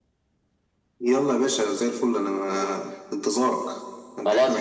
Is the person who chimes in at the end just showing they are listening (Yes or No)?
No